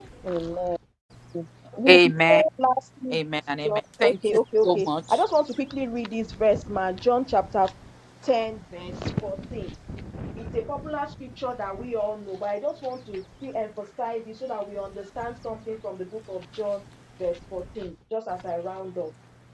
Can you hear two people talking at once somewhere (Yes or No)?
Yes